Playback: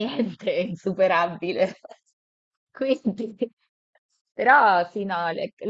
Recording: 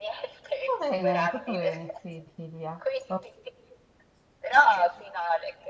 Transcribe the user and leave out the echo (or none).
Tutto bene, tutto bene, sì, Silvia. Oh,